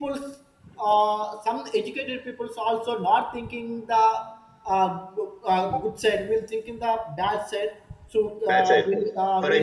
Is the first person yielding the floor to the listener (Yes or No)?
Yes